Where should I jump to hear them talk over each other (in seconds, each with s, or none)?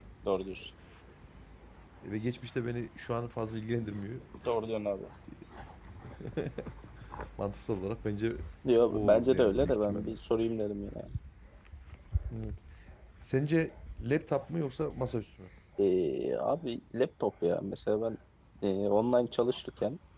8.9 s